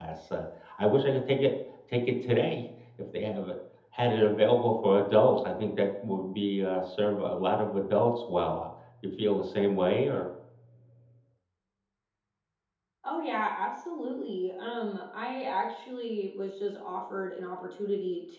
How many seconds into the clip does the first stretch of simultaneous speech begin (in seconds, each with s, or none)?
none